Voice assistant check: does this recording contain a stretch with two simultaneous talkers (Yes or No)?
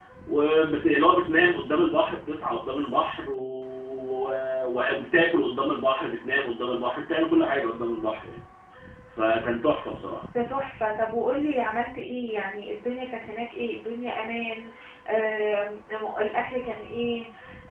No